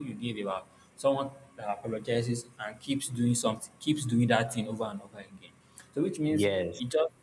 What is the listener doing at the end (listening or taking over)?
listening